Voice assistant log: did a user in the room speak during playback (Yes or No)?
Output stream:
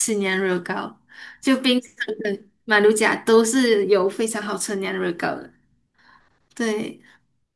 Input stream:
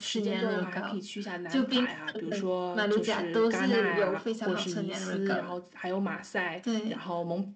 Yes